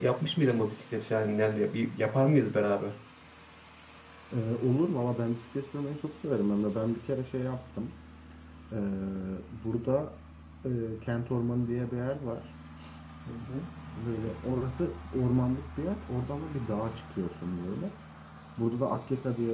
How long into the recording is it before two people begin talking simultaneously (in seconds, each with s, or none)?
none